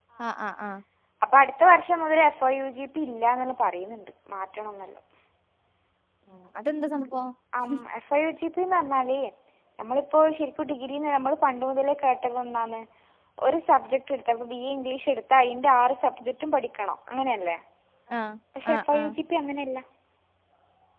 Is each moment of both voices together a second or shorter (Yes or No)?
Yes